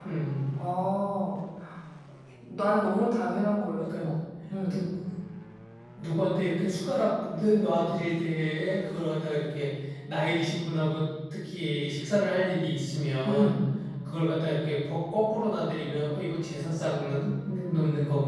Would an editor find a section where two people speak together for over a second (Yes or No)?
No